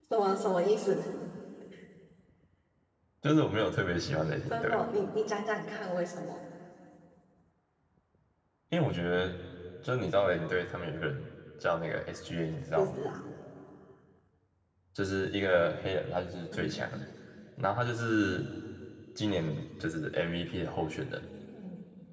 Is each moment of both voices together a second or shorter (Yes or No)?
Yes